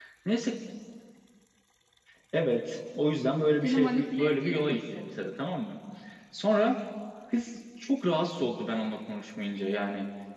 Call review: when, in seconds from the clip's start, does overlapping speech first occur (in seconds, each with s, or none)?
3.6 s